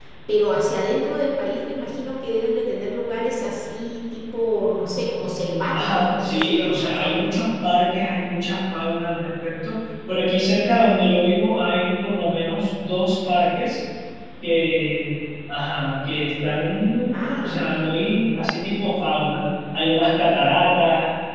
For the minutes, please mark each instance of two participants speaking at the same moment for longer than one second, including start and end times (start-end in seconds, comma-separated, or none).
5.7-7.3